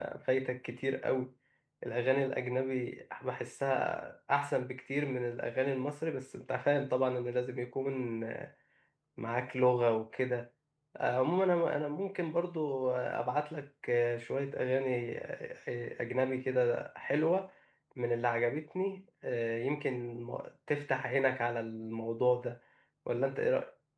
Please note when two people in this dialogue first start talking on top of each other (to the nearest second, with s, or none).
none